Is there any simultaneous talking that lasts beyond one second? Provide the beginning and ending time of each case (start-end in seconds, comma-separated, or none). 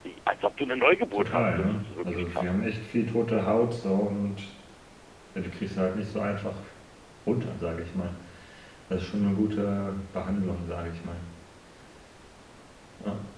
1.1-2.5